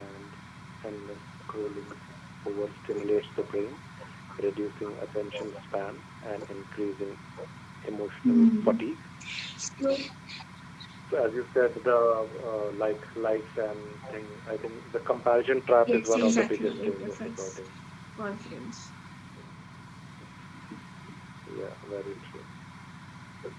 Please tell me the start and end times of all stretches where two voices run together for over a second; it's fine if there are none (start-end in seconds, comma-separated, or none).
15.9-17.6